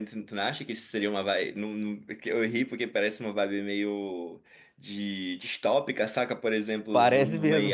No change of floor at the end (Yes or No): Yes